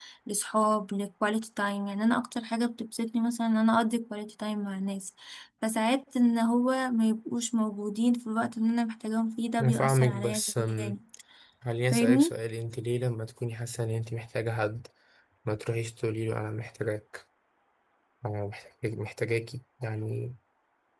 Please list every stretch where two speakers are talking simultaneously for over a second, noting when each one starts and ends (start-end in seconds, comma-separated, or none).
9.6-11.0